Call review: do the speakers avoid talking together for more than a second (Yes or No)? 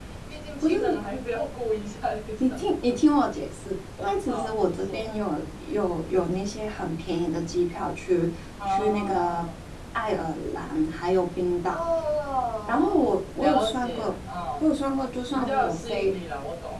No